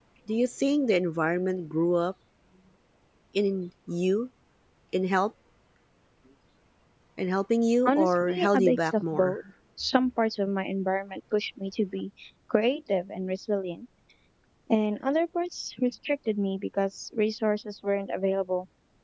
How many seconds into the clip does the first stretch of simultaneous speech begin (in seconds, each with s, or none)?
7.8 s